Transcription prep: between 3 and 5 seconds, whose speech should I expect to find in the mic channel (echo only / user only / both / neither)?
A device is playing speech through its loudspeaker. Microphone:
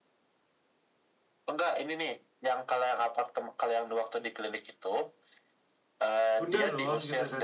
echo only